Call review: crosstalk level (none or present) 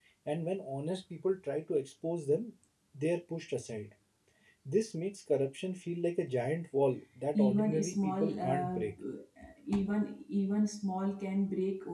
present